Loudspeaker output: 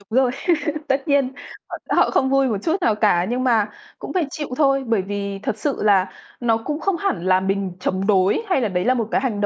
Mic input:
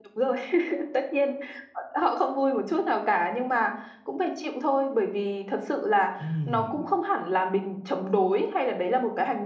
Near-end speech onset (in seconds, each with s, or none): 6.2 s